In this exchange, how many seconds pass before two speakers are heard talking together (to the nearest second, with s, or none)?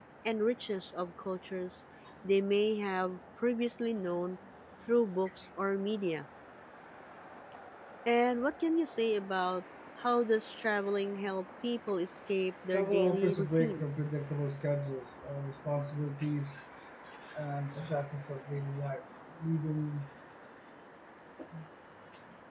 13 s